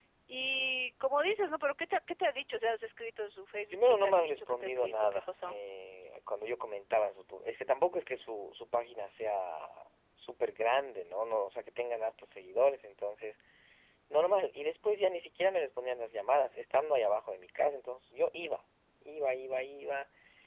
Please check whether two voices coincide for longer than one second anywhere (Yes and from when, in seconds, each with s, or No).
Yes, from 3.7 s